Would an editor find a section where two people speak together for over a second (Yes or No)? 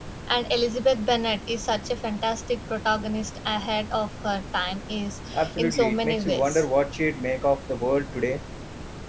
Yes